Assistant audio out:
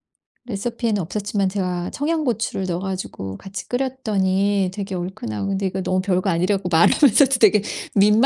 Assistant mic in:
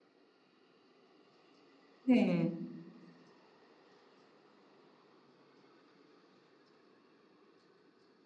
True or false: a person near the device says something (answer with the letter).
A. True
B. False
A